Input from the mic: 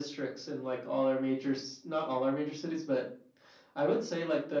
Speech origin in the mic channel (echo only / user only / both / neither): echo only